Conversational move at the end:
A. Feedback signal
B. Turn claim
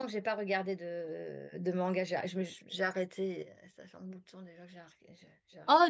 B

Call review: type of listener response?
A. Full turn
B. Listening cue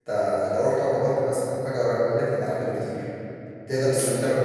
B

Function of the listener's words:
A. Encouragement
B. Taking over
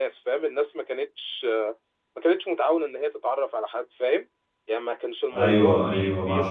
B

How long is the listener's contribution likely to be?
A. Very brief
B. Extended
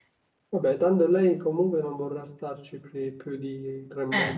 B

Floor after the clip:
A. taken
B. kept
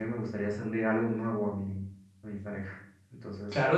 A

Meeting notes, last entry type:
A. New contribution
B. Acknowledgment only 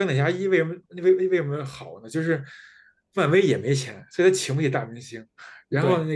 B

